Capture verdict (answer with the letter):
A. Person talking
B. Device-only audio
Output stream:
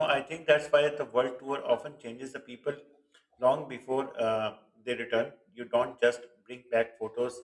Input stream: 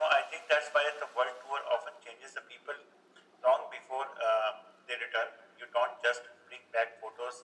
B